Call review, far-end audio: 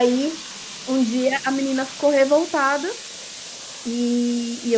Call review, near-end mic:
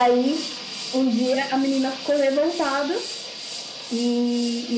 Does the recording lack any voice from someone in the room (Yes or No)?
Yes